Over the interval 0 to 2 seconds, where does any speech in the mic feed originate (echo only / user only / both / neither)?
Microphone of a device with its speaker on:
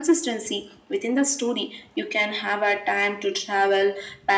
echo only